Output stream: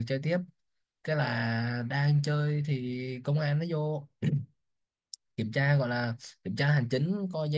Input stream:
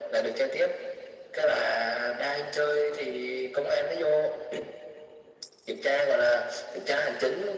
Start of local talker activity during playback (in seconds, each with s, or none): none